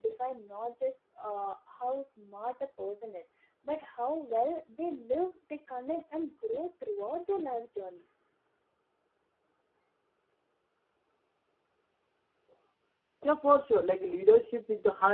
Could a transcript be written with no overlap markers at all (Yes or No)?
Yes